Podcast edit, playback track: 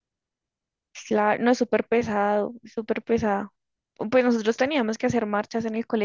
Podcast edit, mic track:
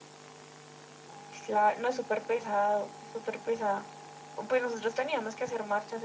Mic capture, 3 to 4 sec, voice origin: echo only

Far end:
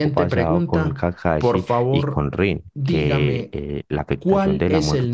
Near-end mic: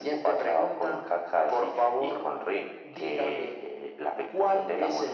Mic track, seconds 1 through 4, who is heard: echo only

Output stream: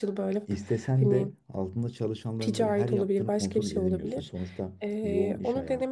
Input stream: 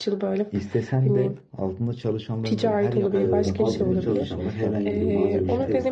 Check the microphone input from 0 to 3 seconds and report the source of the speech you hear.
echo only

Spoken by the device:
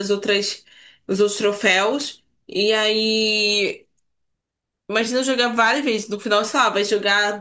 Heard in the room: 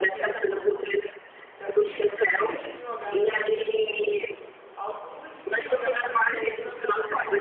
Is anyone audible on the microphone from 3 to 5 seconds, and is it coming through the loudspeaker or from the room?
both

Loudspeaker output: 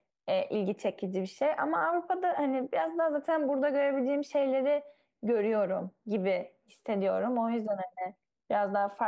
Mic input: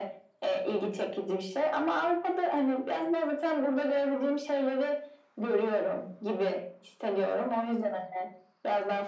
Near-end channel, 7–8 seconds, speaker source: echo only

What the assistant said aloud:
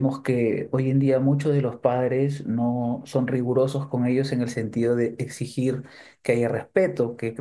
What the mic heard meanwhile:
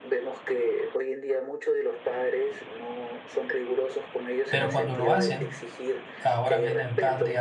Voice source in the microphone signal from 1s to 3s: echo only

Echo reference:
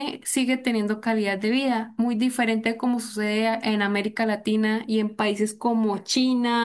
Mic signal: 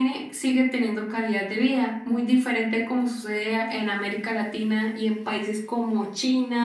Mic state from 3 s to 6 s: echo only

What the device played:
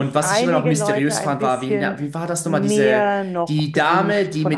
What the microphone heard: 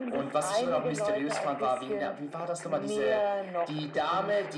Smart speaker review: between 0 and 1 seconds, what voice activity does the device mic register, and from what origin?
echo only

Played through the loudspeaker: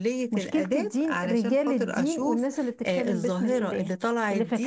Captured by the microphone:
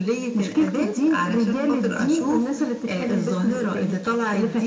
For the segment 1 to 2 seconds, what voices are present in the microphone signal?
echo only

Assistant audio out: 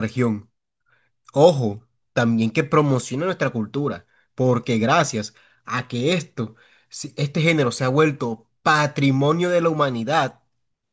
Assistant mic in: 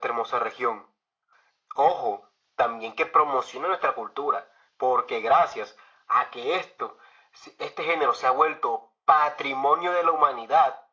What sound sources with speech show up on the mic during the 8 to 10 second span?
echo only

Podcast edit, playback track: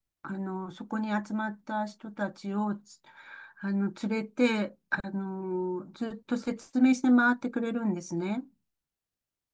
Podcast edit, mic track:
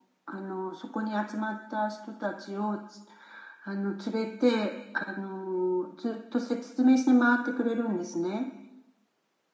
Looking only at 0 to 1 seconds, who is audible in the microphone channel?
echo only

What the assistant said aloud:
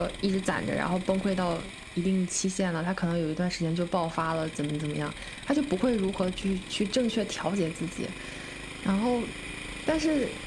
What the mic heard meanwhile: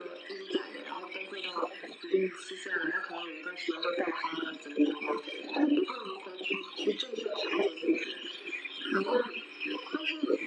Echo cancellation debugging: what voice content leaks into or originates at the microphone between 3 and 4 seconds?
echo only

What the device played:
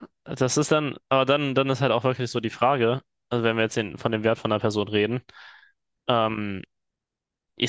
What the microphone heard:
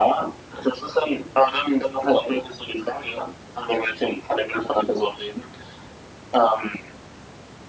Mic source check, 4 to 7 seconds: echo only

